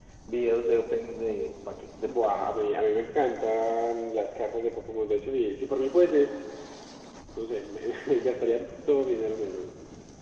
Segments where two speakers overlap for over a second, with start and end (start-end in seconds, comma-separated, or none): none